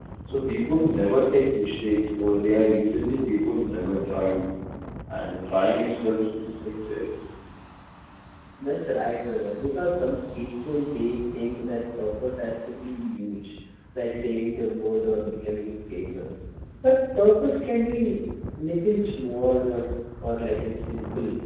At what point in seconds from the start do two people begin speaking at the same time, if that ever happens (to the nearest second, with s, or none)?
none